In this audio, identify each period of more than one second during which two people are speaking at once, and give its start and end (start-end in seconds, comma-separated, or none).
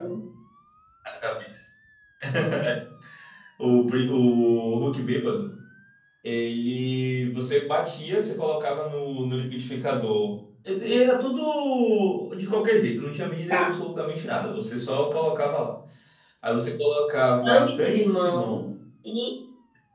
17.4-18.6